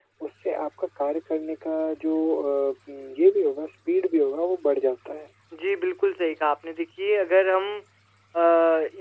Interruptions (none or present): none